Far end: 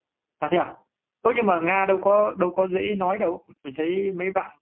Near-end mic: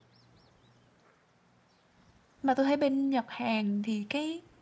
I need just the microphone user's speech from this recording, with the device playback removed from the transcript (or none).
mà tôi thấy bên Nhật Hàn thì cái